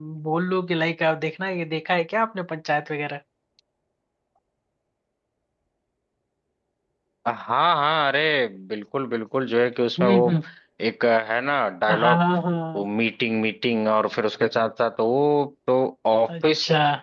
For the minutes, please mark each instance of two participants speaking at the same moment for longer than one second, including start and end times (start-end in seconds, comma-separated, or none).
none